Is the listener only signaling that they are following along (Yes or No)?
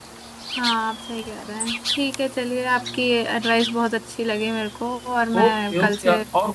No